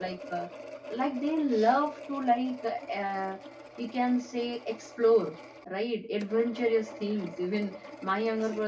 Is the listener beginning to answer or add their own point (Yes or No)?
No